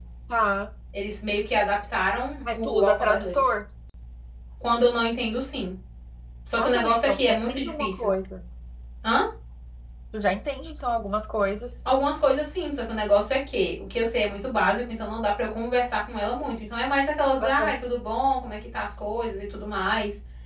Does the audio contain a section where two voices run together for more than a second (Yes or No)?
Yes